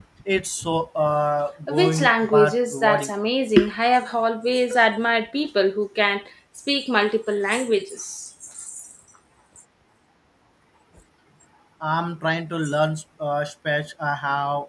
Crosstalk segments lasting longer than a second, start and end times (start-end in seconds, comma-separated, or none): 1.7-3.1